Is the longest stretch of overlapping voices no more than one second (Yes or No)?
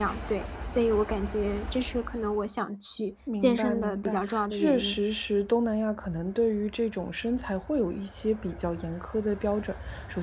No